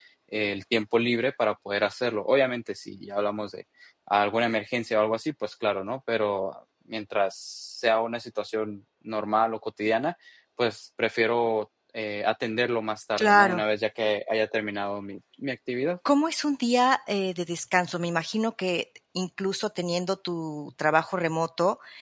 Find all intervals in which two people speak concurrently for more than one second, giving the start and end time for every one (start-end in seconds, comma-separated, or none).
none